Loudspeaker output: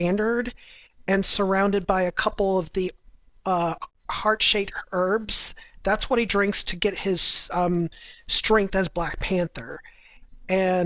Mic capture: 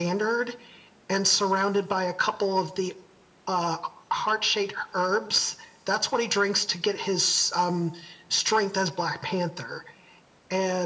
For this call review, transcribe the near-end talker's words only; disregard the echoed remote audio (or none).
none